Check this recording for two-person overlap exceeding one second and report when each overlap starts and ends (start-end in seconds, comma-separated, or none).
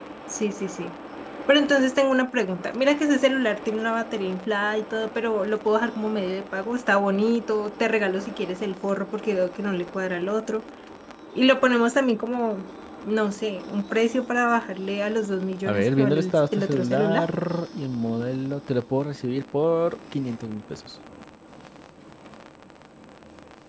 15.7-17.3